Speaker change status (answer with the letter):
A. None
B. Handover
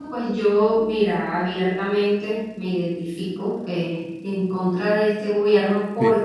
A